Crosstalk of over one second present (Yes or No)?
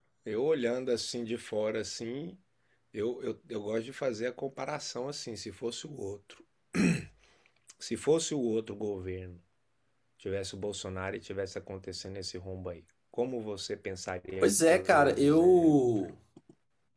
Yes